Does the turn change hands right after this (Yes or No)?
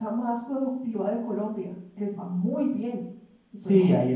Yes